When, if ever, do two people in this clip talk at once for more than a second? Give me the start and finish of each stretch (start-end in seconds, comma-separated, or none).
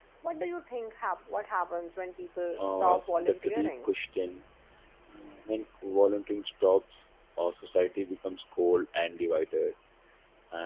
2.6-3.9